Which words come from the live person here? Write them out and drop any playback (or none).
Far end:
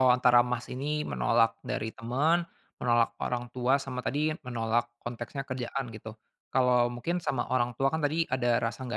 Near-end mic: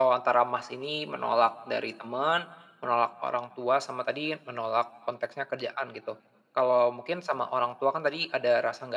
none